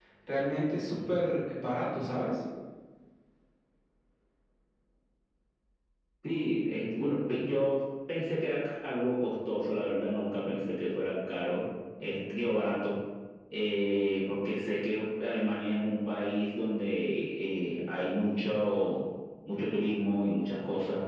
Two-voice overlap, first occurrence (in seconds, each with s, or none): none